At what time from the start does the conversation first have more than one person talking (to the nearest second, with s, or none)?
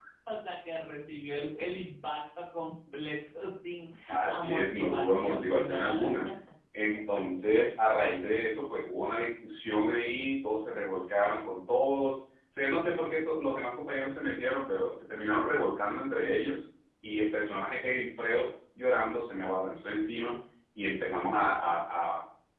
4 s